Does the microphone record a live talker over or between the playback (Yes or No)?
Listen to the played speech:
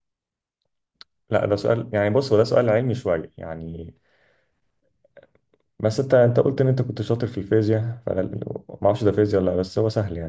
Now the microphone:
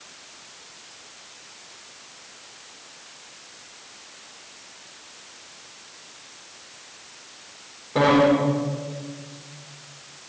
Yes